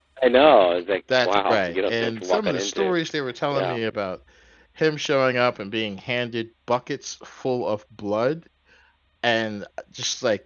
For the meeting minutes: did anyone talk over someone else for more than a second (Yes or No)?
Yes